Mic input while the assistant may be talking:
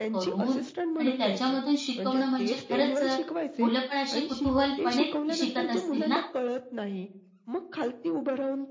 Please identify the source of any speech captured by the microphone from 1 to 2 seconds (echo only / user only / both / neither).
both